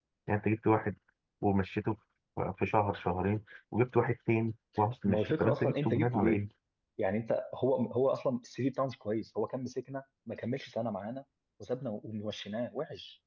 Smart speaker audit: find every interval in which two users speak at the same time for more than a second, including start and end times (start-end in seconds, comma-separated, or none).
5.0-6.4